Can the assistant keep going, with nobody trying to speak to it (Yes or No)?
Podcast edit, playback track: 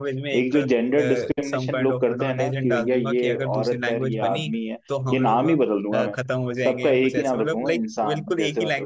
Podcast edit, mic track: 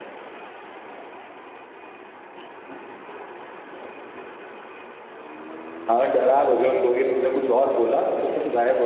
No